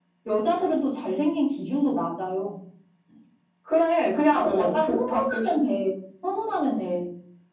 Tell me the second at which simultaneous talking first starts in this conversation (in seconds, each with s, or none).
4.3 s